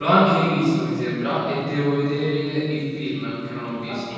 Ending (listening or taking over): taking over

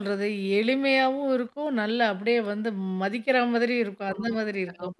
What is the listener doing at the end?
taking over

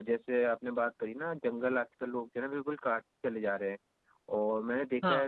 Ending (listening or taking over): listening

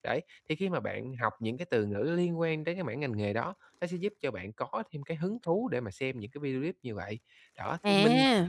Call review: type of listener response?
listening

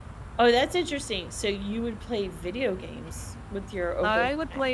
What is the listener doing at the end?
taking over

